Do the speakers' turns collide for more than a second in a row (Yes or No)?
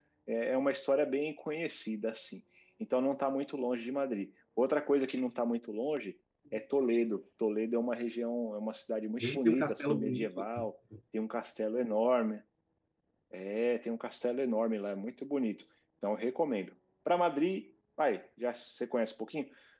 Yes